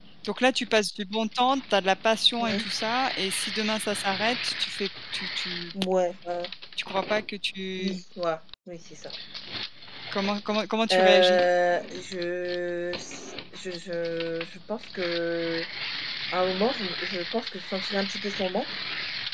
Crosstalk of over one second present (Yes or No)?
No